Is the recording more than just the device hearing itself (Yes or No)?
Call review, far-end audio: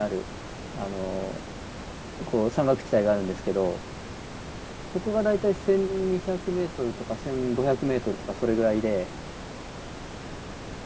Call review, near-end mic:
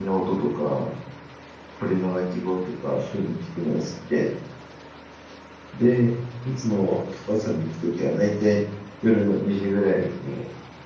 Yes